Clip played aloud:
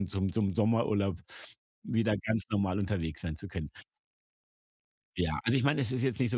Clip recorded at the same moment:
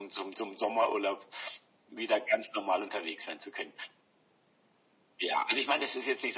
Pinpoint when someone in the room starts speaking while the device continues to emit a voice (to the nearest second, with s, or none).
none